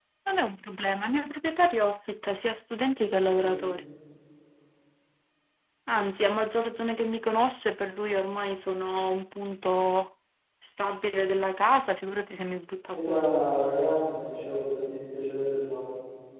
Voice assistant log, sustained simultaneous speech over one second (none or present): none